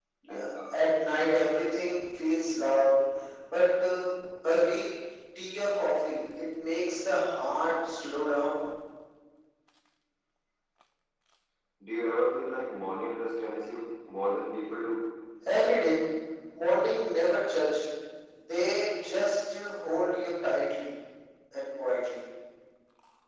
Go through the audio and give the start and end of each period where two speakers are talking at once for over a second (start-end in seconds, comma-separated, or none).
none